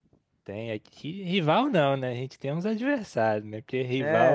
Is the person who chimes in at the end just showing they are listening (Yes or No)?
No